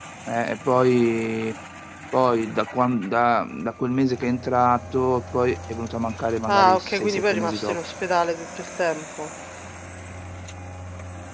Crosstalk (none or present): present